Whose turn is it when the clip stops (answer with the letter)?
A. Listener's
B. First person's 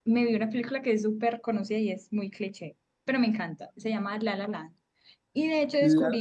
B